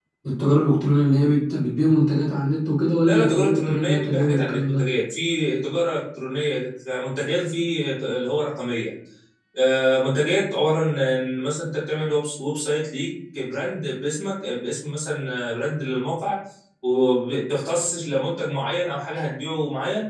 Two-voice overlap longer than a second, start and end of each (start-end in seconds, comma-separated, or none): 3.0-4.8